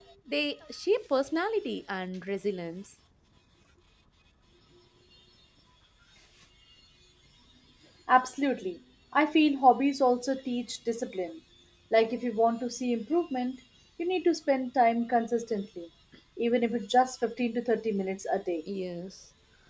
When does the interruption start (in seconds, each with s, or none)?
none